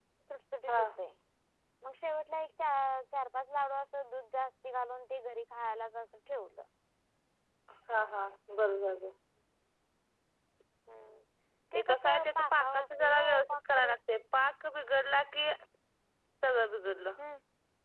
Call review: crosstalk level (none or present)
present